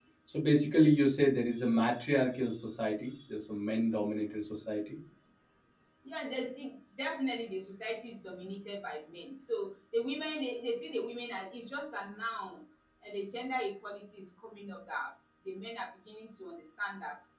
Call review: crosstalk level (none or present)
none